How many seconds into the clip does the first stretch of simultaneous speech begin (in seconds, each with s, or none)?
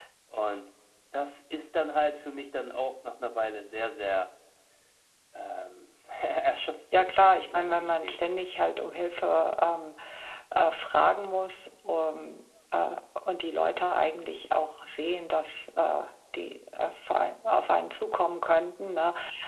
6.9 s